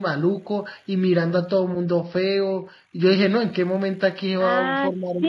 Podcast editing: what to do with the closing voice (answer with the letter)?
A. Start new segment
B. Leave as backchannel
A